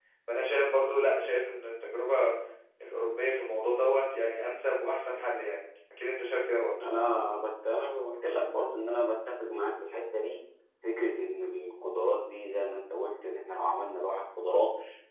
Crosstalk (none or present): none